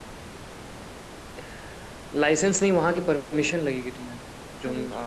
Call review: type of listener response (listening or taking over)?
listening